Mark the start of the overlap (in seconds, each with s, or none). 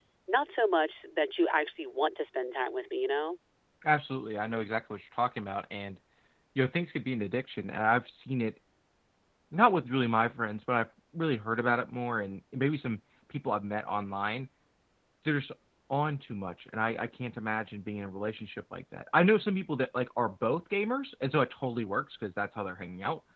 none